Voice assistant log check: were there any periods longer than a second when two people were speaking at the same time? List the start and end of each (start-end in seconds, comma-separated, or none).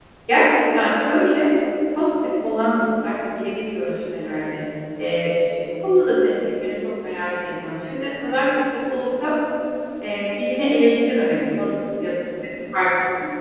none